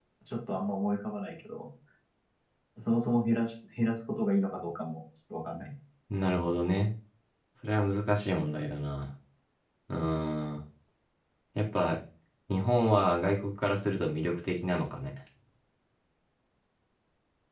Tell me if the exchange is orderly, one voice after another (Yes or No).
Yes